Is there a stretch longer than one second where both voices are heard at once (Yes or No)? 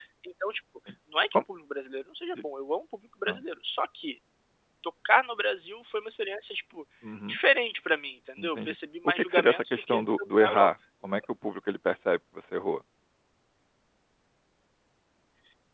Yes